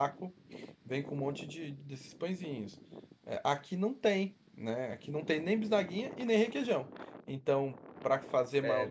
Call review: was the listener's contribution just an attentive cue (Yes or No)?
No